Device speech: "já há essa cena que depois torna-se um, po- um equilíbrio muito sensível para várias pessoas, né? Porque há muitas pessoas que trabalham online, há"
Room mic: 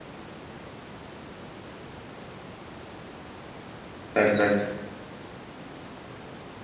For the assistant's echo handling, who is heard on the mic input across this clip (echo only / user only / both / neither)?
user only